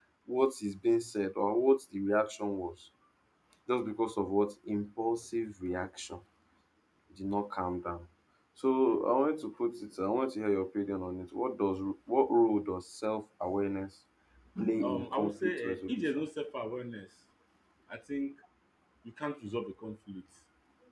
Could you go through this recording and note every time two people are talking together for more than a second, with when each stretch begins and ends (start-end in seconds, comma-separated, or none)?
14.8-16.0